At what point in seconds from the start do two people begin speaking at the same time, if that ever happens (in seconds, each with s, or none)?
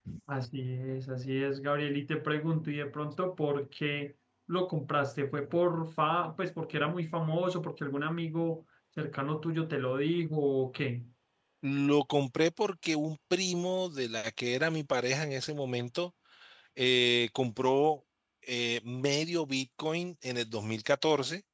none